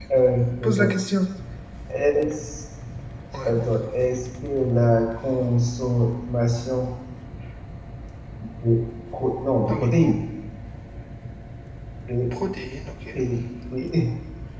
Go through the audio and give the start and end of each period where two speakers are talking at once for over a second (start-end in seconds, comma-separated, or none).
none